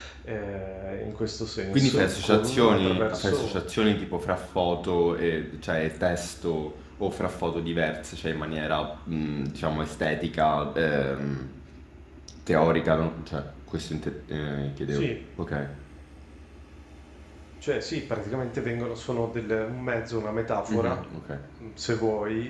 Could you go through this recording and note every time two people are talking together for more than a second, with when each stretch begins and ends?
1.7-3.6

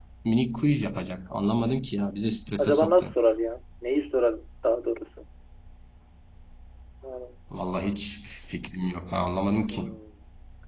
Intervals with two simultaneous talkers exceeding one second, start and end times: none

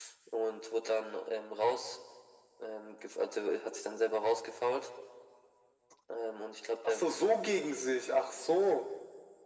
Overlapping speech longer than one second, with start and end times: none

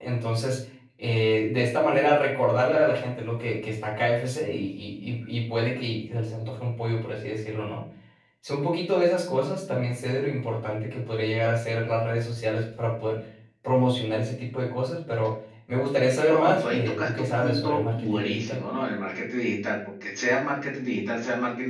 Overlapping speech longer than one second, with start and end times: 16.3-18.6

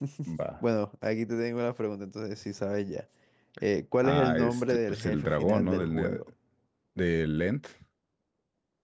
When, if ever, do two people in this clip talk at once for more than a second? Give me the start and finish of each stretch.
4.0-6.2

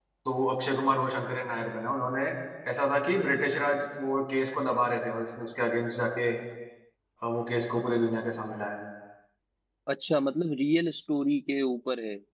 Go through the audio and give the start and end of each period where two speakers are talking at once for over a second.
none

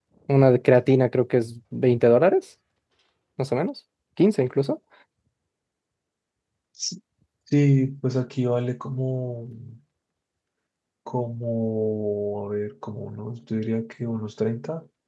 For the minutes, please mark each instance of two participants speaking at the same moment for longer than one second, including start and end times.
none

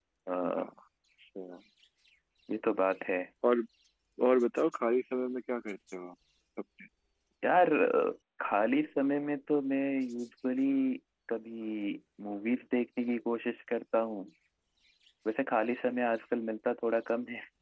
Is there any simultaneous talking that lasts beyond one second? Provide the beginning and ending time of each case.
none

